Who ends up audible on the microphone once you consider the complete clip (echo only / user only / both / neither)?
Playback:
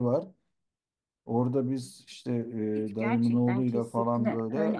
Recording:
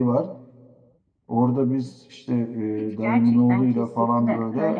echo only